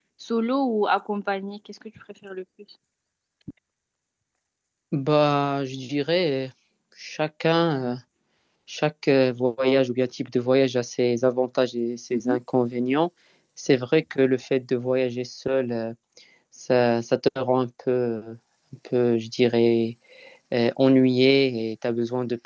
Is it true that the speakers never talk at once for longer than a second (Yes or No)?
Yes